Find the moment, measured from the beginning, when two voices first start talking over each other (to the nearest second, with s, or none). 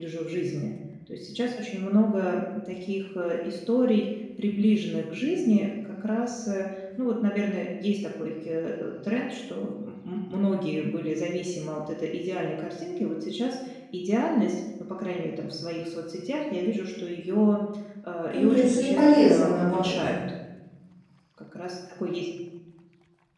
18 s